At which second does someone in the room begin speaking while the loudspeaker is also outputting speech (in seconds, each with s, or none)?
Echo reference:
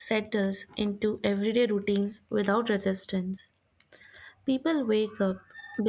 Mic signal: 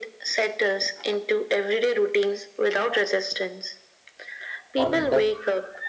4.8 s